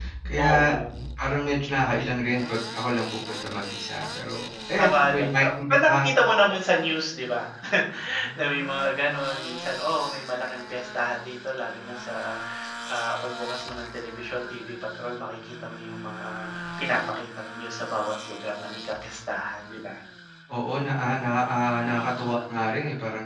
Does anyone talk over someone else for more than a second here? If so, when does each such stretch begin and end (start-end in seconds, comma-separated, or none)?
4.8-6.1